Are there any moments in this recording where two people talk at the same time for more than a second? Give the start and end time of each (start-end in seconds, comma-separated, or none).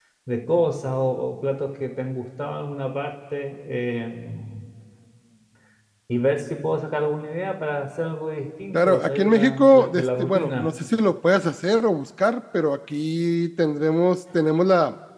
8.7-10.7